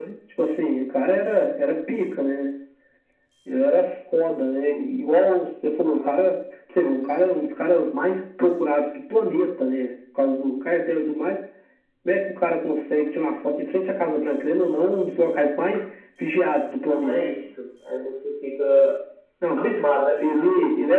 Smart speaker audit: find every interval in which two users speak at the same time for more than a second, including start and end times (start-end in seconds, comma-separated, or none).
none